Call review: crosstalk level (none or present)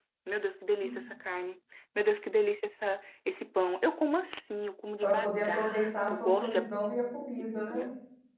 present